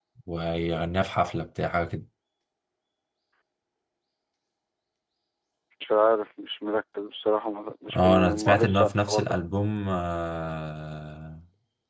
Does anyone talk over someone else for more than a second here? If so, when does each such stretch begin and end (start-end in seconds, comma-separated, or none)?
7.9-9.4